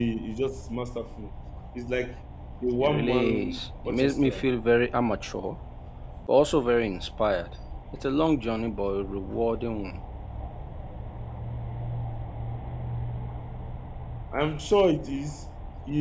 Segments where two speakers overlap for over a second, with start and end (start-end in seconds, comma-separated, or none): 2.8-4.5